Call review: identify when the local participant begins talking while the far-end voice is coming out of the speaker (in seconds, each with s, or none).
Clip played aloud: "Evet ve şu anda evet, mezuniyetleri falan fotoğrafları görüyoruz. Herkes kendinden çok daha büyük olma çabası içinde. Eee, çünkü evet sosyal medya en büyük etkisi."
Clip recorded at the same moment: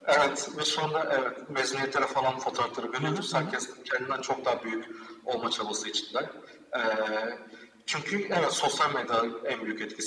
2.9 s